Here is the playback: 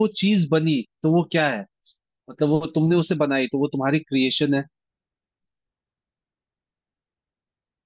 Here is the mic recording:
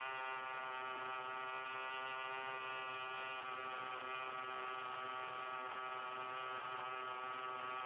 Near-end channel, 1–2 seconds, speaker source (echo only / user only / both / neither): neither